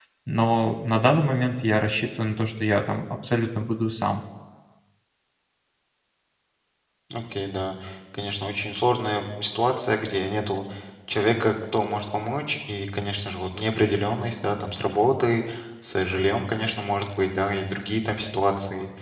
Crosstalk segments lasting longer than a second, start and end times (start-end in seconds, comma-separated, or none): none